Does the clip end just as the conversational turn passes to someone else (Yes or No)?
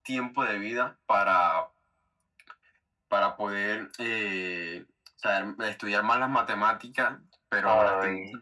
No